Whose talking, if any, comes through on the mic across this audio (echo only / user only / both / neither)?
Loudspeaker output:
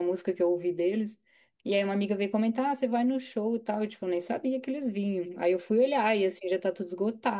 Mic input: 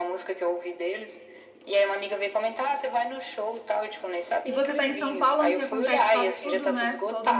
both